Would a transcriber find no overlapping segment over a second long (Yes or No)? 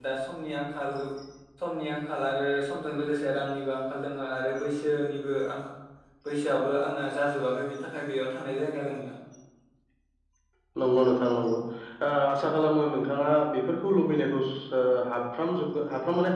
Yes